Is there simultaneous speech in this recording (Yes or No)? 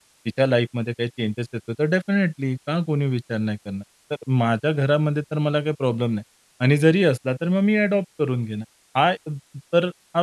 No